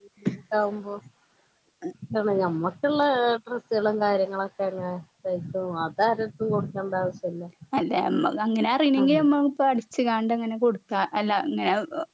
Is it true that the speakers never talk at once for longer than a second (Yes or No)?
Yes